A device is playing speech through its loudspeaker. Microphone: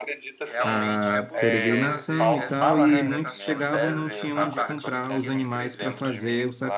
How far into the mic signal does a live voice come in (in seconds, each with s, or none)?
0.6 s